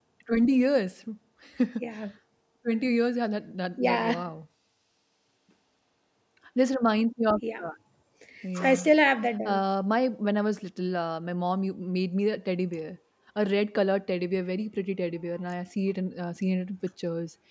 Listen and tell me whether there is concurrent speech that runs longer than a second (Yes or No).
No